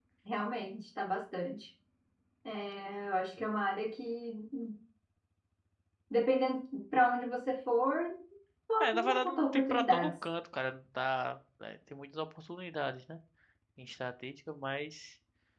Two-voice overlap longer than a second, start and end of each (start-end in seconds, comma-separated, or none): 8.8-10.1